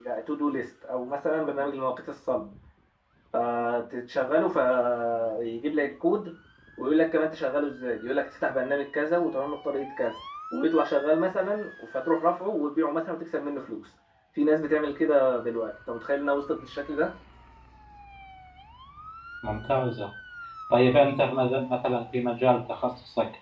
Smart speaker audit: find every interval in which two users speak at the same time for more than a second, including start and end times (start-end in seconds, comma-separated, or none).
none